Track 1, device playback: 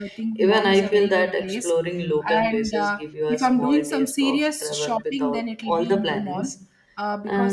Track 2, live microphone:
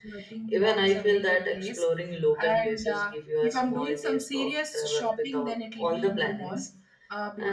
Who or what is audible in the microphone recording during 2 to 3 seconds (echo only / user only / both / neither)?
echo only